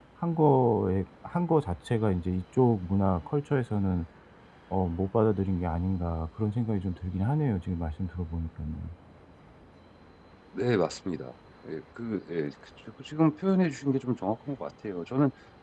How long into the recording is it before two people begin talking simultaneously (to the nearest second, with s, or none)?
none